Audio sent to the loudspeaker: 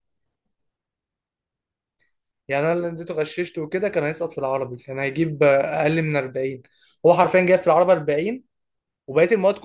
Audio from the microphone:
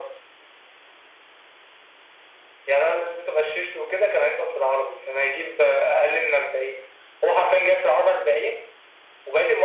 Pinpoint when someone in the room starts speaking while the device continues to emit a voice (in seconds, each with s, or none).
none